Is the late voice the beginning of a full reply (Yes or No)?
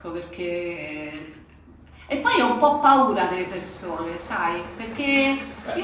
No